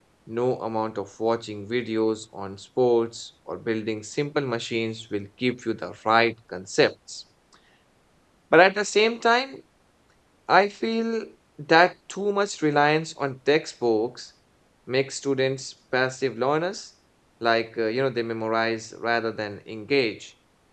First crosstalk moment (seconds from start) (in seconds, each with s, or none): none